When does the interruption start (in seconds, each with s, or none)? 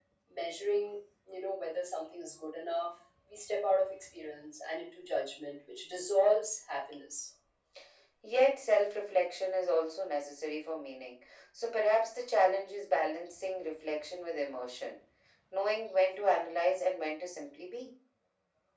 none